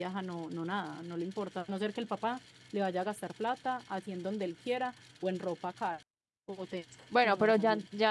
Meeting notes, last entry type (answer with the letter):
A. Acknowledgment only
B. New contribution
B